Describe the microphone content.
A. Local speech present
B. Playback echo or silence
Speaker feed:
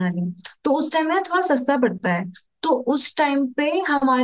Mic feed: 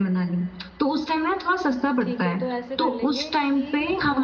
A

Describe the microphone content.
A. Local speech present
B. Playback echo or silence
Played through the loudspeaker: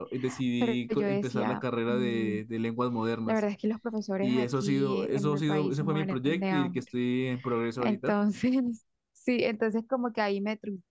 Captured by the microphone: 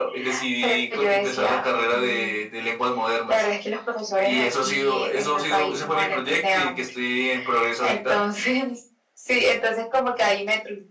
B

